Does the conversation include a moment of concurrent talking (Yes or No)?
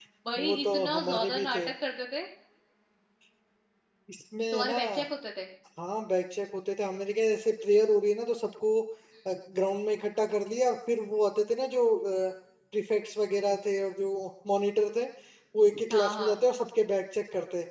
Yes